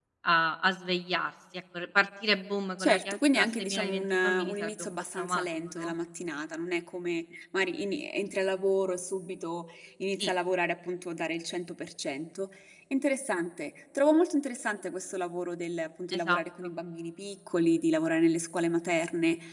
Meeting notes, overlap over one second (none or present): present